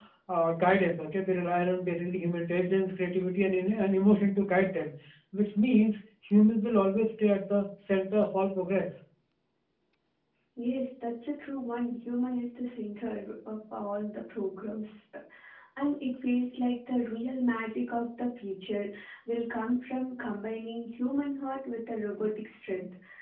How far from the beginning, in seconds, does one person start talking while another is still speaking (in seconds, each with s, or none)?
none